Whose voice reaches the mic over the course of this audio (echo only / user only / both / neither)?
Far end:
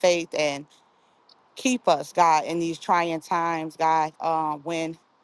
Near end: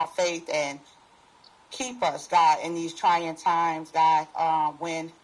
echo only